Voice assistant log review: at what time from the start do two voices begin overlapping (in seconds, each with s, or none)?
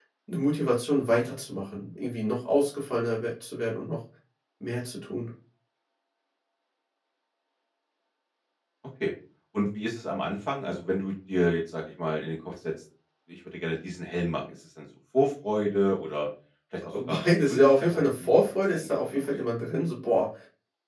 16.9 s